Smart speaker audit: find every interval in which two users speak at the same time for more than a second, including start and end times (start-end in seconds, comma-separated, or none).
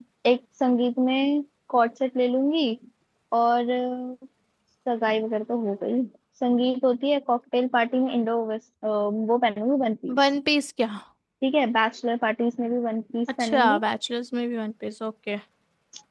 none